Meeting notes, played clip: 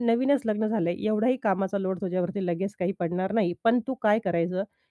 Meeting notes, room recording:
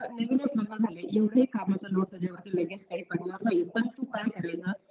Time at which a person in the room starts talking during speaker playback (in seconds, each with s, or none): none